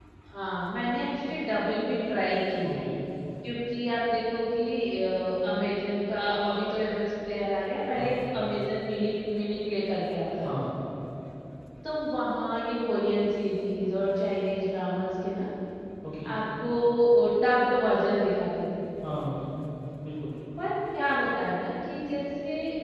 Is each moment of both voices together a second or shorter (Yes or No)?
Yes